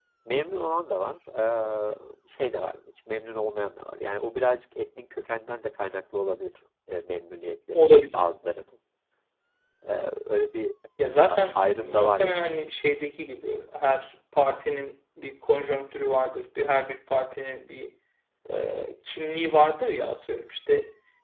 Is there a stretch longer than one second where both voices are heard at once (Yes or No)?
Yes